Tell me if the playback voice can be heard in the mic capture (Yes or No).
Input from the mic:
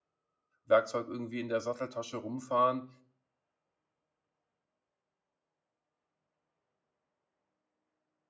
No